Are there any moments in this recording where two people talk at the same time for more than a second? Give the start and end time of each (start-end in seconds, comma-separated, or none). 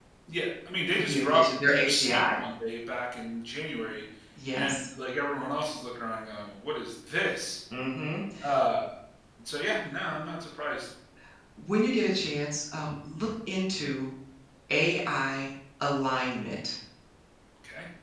1.0-2.4